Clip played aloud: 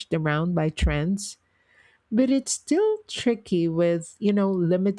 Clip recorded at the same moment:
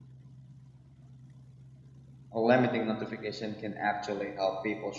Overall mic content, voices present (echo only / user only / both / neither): user only